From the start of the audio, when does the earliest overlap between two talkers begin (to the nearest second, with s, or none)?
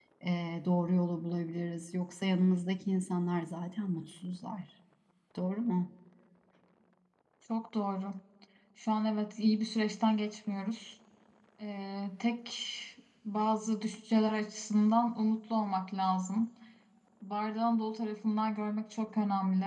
none